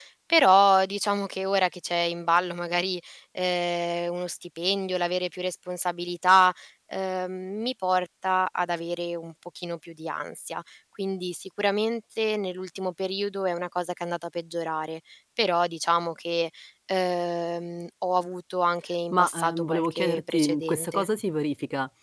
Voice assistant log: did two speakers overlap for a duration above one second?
Yes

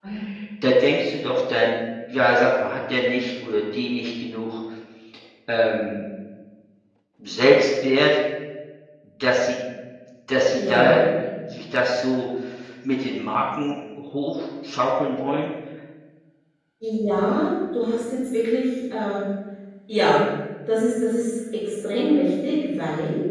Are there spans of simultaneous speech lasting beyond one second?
No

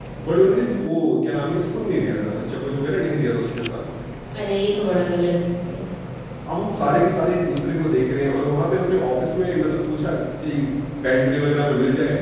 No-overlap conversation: Yes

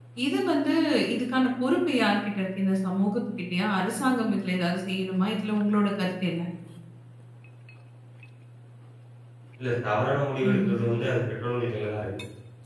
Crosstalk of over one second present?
No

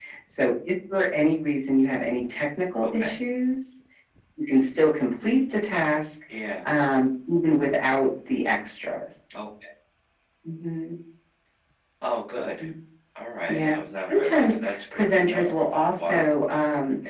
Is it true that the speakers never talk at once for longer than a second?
No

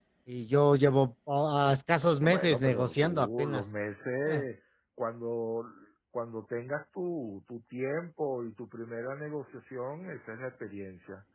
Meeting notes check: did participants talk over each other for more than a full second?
Yes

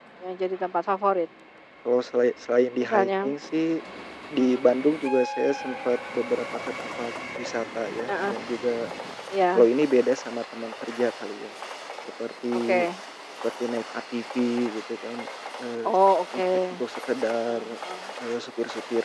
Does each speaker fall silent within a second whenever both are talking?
Yes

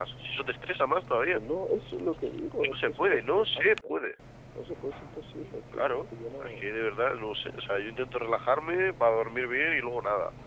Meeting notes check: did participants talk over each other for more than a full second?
Yes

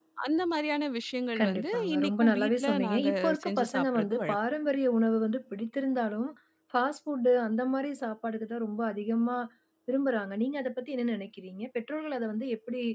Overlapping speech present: Yes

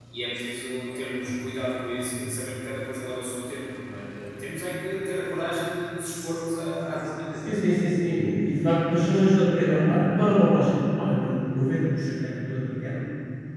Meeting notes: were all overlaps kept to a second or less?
Yes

